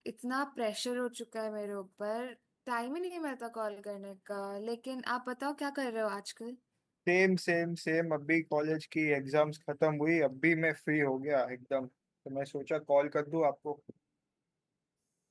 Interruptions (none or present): none